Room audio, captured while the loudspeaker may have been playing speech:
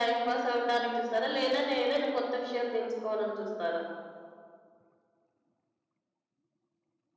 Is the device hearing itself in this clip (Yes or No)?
Yes